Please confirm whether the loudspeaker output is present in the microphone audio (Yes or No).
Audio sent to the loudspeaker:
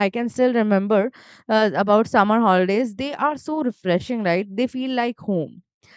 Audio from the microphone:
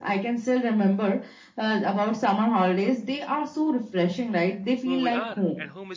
Yes